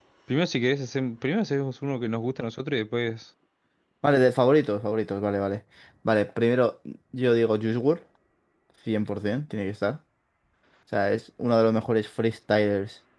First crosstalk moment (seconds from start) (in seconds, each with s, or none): none